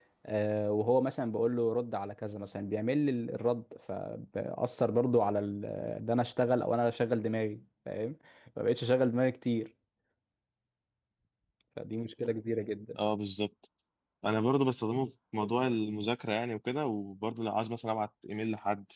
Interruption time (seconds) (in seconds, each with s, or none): none